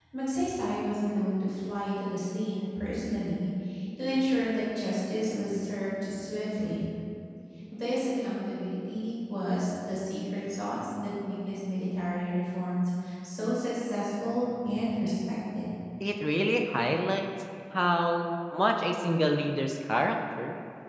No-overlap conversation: Yes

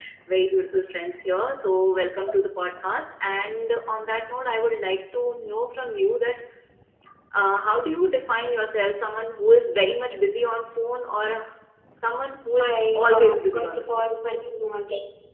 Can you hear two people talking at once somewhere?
Yes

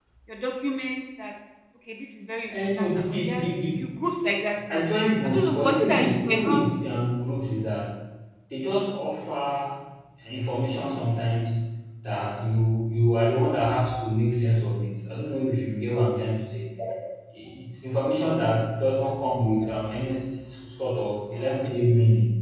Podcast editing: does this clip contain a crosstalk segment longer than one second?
Yes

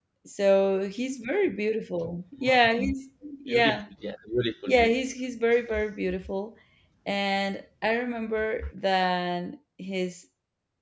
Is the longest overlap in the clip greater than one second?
No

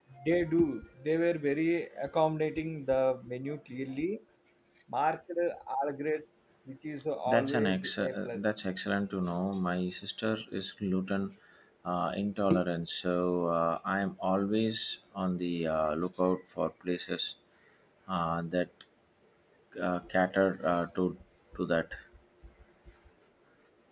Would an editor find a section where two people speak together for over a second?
Yes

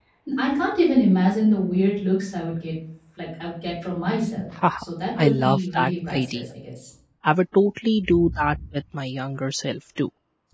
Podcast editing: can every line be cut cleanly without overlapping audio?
No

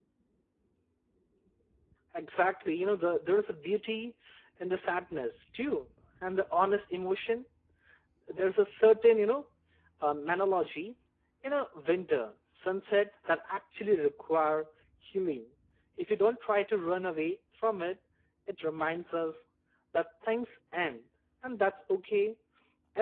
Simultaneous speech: No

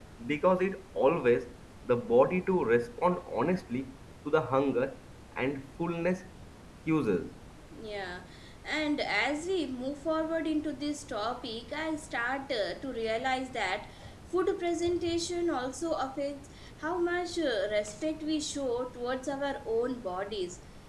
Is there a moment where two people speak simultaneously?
No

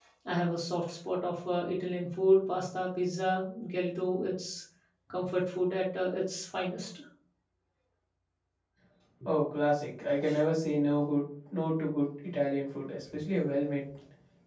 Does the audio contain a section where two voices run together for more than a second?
No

